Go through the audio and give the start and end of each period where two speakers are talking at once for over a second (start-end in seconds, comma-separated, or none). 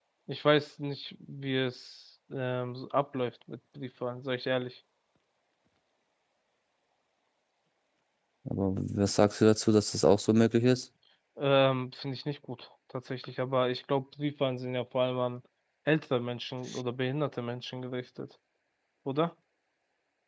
none